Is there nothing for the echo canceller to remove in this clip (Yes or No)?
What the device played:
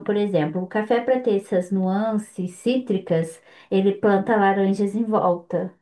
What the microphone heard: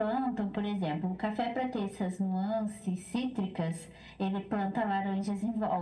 No